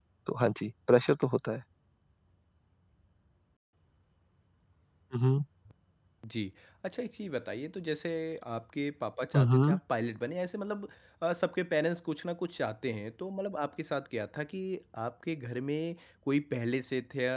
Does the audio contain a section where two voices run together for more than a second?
No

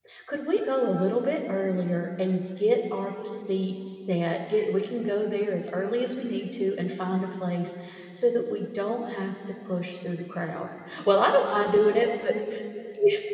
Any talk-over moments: No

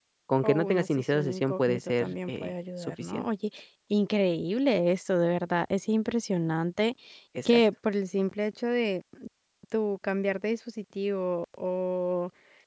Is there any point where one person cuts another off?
Yes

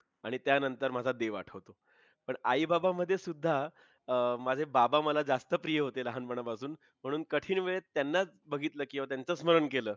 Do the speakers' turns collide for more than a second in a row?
No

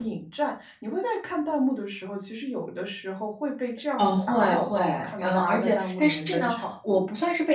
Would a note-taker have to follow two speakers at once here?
Yes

